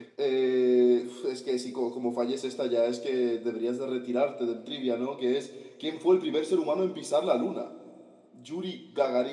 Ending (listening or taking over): listening